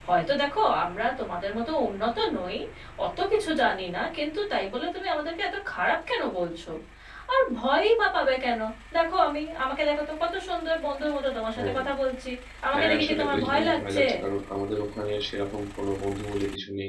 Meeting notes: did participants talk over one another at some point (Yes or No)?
Yes